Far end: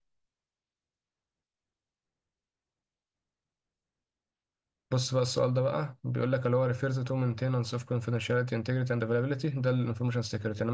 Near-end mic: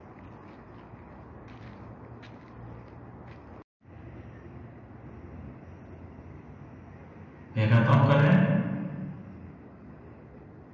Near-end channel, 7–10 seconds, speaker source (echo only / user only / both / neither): user only